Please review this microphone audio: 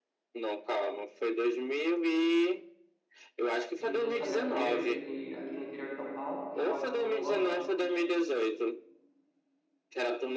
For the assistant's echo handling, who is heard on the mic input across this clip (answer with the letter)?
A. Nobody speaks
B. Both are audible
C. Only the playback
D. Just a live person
B